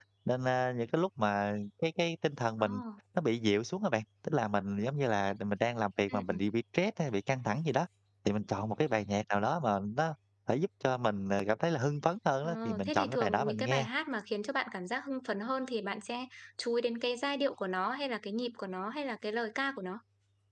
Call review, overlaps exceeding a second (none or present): present